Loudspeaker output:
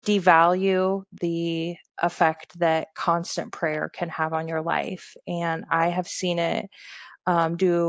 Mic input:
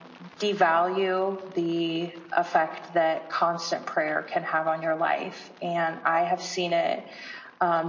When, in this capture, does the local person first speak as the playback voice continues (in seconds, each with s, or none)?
none